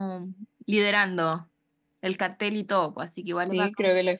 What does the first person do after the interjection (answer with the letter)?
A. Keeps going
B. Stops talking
B